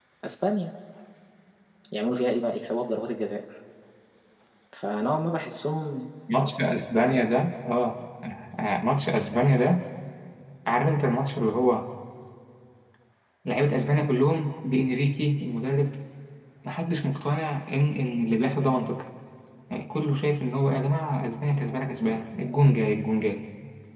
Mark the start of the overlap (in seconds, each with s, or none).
none